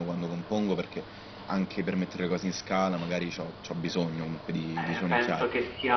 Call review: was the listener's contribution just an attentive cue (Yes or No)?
No